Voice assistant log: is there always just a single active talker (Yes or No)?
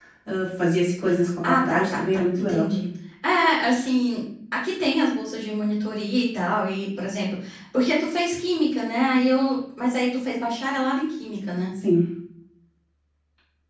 No